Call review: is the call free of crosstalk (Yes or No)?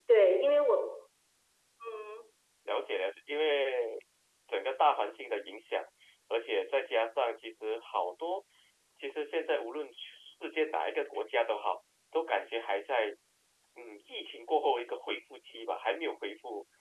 Yes